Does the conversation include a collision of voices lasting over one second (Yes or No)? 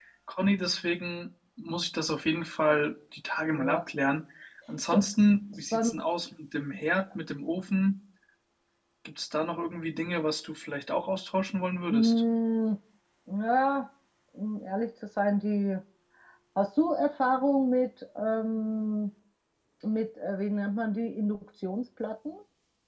No